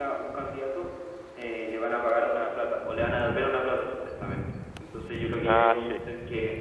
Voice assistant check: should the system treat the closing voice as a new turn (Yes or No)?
No